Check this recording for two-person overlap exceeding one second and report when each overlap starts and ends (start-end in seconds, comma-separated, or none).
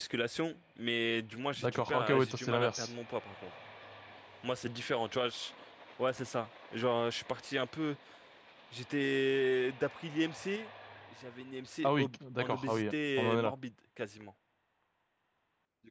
1.6-2.9, 11.8-13.5